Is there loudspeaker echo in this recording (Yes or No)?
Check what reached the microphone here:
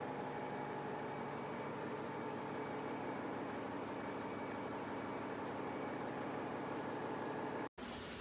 No